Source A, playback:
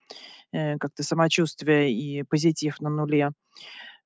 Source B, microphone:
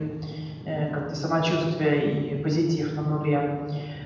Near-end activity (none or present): none